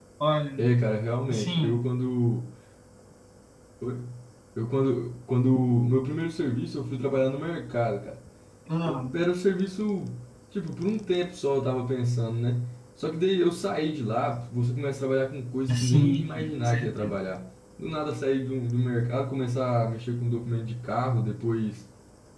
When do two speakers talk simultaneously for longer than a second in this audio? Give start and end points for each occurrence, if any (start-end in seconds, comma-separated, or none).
15.8-17.1